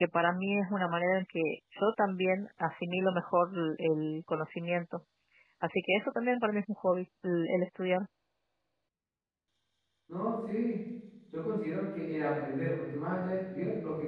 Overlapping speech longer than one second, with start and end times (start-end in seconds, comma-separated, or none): none